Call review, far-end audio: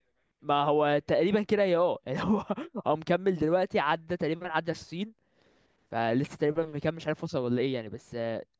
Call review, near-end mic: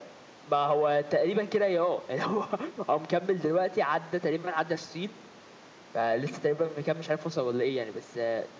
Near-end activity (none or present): none